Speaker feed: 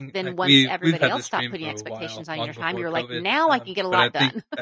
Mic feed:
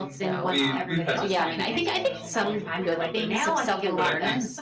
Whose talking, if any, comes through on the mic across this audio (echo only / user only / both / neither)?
both